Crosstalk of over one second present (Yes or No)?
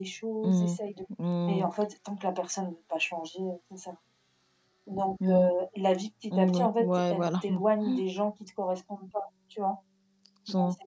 Yes